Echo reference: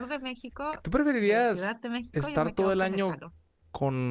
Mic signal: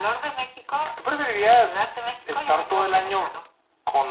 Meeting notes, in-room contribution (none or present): none